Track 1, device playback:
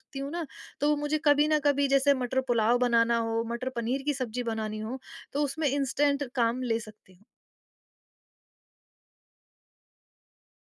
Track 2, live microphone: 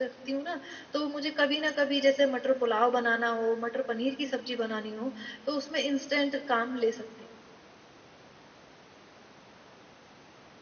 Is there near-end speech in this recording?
No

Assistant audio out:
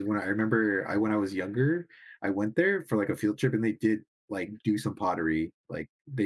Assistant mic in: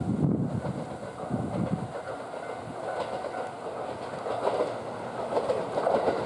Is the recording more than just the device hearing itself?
No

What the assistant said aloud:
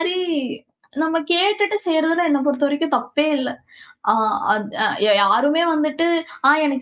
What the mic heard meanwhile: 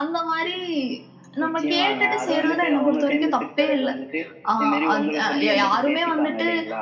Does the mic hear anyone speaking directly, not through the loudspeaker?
Yes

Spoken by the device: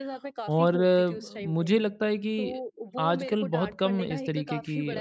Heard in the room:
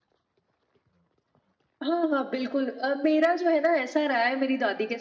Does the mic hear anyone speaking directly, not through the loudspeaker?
Yes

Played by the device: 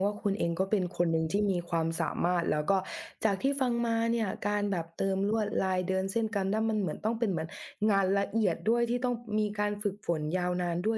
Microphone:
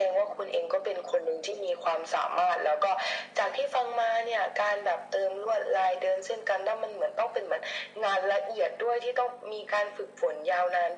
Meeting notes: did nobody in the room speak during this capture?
Yes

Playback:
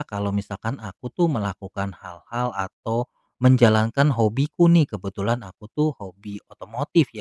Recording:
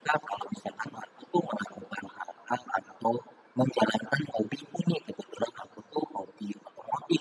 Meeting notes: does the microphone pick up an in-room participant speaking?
No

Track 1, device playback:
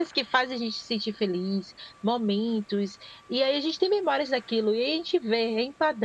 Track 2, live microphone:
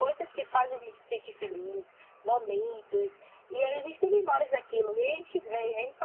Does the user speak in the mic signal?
No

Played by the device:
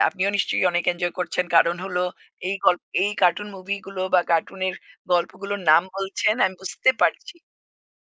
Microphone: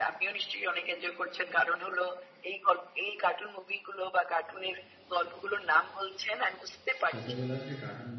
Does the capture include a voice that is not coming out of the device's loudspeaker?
Yes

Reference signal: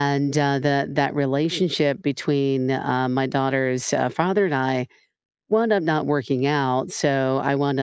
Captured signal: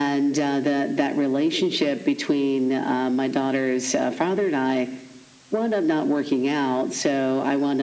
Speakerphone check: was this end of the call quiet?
Yes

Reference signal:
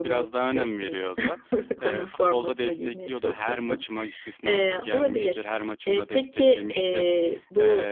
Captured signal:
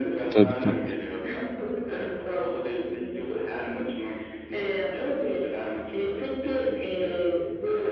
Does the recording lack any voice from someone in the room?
No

